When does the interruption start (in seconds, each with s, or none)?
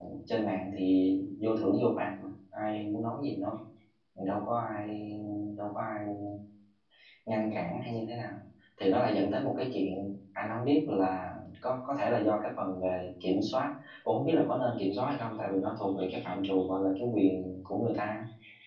none